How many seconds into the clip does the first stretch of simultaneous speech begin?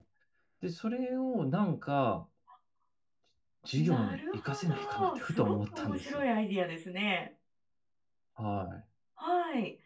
3.7 s

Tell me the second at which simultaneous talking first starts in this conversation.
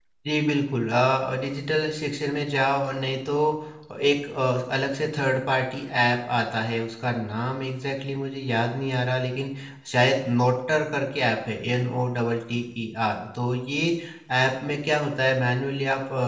none

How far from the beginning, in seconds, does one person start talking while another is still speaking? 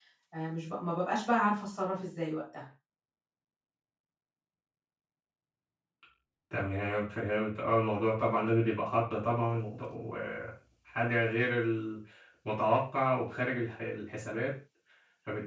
none

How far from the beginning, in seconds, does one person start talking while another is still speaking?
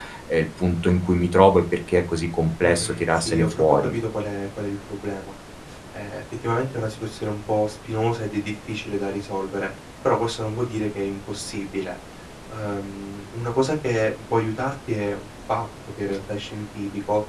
2.6 s

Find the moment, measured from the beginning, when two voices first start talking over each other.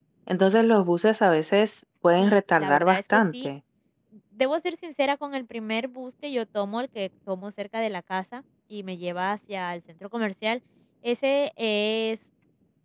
2.2 s

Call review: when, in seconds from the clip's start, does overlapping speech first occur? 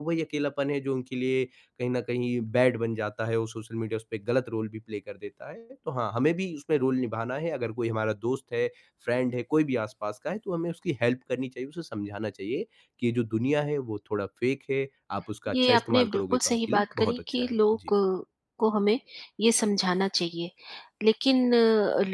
15.5 s

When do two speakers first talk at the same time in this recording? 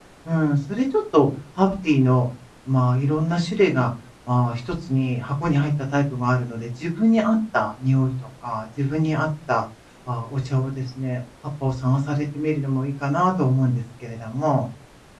none

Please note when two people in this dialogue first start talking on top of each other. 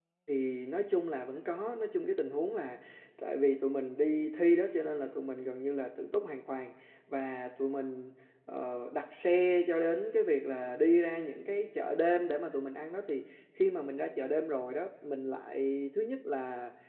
none

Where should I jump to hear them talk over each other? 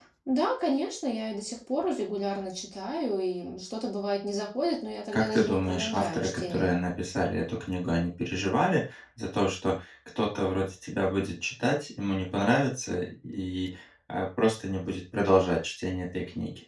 5.1 s

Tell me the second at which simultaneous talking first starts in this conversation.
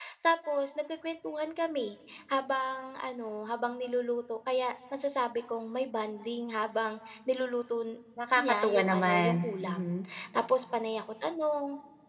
8.4 s

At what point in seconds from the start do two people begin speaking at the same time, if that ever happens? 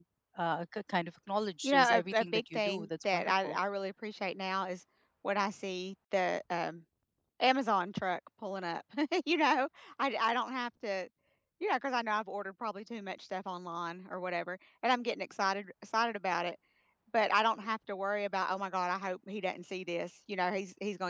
1.6 s

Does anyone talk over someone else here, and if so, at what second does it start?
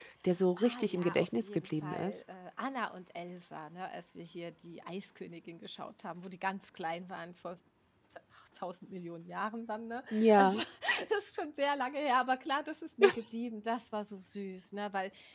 0.6 s

